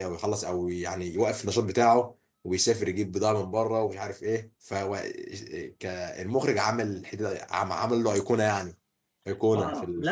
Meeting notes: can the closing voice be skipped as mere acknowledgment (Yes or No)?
No